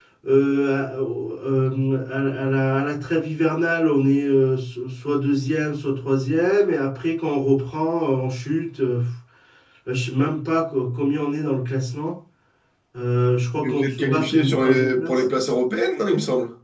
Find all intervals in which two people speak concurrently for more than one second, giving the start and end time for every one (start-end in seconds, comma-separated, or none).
13.6-15.2